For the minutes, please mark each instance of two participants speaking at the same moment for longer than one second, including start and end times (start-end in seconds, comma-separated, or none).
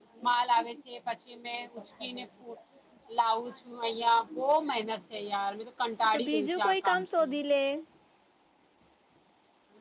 6.1-7.3